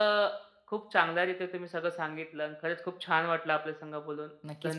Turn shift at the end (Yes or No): Yes